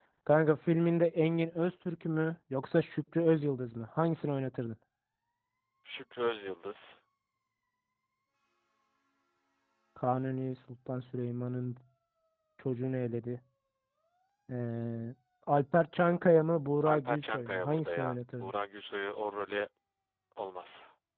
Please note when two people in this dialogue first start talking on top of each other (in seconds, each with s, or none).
16.8 s